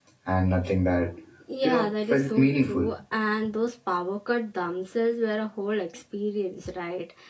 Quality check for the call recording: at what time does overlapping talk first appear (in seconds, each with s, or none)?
1.6 s